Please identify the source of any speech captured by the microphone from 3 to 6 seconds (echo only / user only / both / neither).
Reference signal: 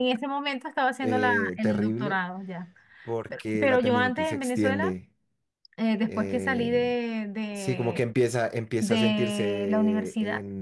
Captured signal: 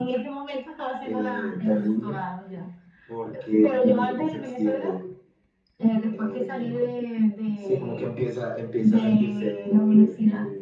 echo only